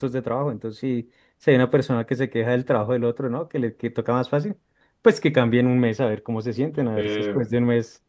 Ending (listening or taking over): listening